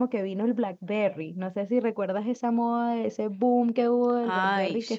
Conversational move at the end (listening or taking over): taking over